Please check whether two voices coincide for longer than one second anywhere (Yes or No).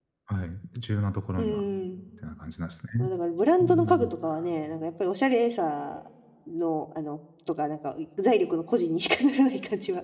No